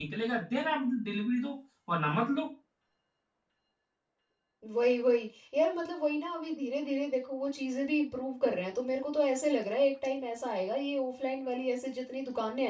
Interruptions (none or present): none